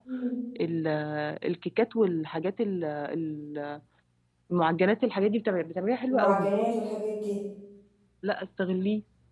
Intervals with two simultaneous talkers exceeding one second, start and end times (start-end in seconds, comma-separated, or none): none